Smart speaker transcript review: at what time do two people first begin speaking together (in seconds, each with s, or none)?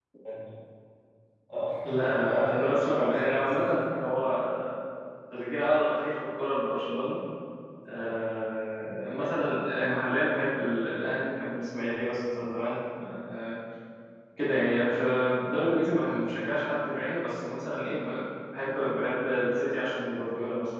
1.8 s